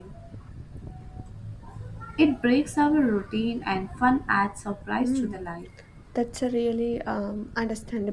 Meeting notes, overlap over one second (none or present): none